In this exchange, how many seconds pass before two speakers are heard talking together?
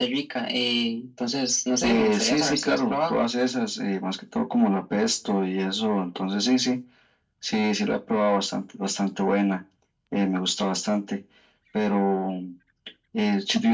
1.8 s

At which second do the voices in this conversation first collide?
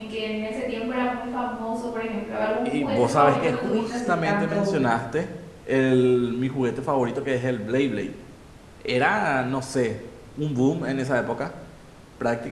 2.6 s

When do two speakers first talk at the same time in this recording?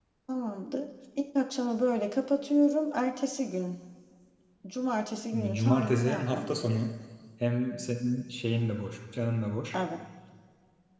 5.3 s

